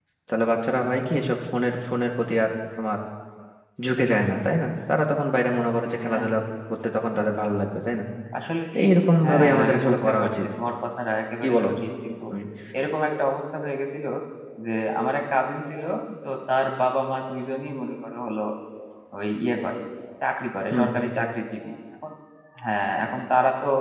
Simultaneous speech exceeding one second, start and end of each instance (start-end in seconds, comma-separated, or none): 9.2-10.4